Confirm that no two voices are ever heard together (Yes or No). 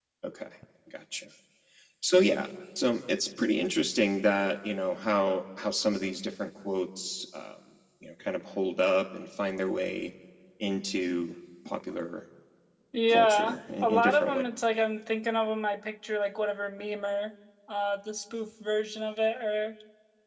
No